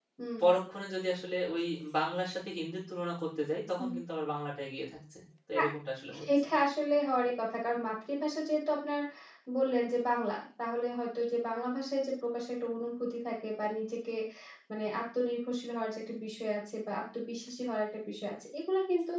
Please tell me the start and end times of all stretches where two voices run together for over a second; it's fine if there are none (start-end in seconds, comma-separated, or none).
none